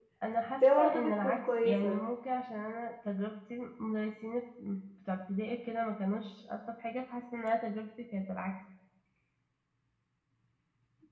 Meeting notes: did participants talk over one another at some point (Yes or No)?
Yes